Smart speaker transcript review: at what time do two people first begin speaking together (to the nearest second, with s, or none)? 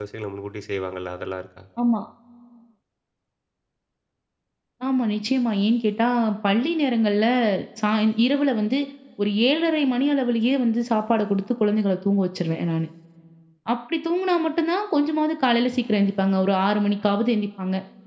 none